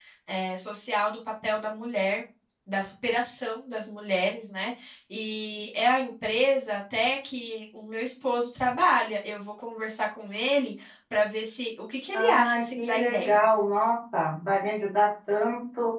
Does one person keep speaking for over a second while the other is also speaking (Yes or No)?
Yes